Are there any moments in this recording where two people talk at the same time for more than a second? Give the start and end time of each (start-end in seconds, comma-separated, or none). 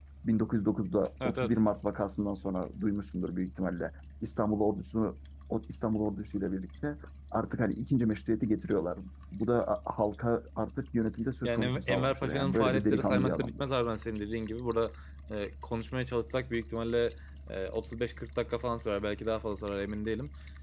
11.4-13.6